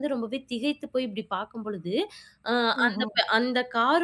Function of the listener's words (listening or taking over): listening